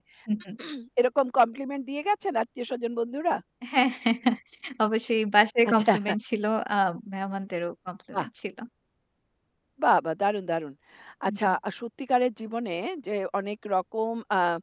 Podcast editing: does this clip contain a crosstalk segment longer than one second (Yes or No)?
No